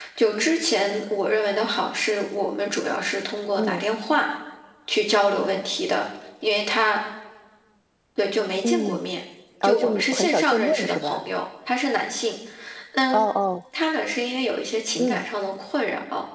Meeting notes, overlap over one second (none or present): present